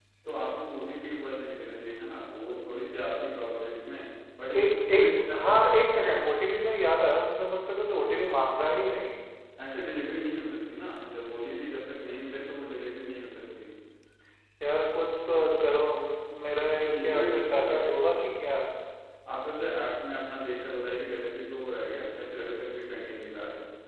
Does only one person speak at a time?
No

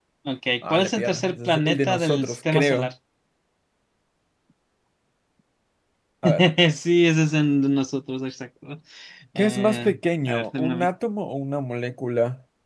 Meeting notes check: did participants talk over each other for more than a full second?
Yes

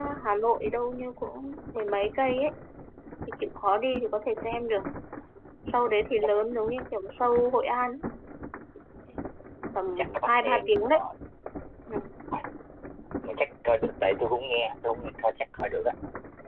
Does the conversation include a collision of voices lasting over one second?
Yes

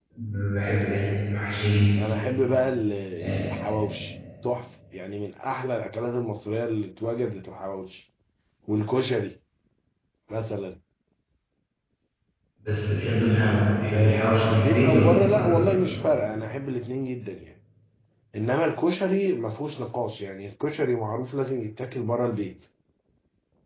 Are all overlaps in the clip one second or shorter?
No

